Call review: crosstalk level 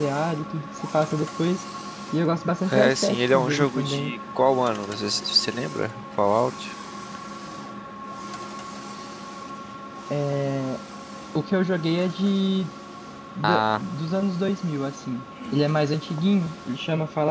present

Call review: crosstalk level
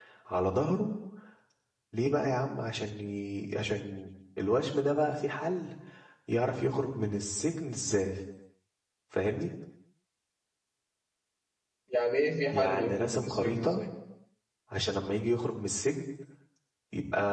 present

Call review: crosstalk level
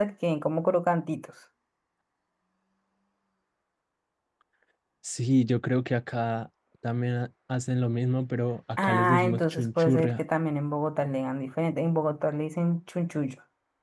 present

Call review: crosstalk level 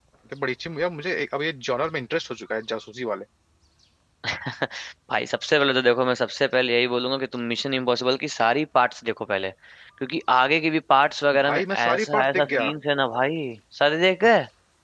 present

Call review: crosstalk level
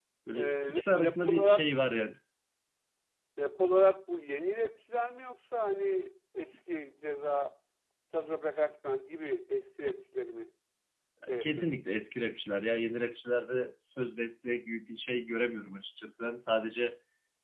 present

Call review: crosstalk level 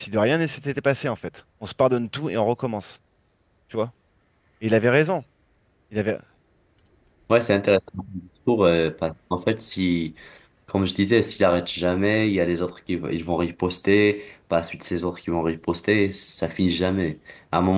none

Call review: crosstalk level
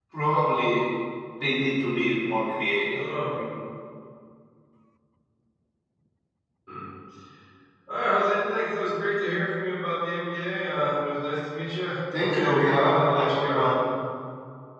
present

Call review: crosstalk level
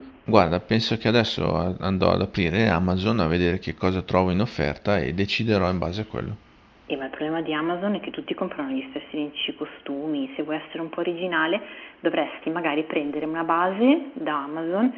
none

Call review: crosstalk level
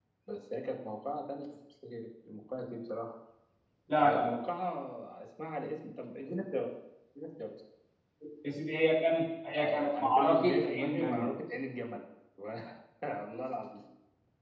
present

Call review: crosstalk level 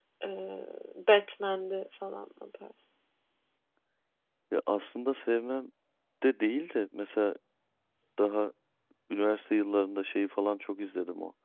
none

